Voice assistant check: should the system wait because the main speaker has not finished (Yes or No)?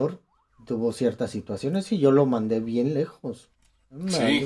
Yes